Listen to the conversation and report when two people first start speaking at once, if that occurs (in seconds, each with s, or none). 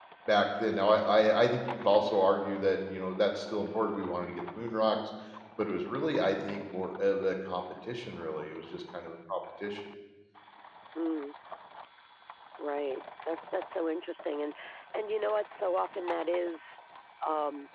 none